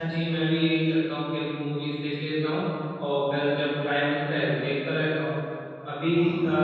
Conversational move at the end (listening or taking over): listening